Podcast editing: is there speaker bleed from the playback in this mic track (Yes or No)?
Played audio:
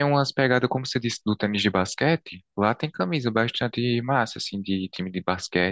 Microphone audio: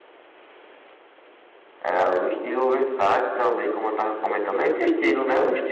No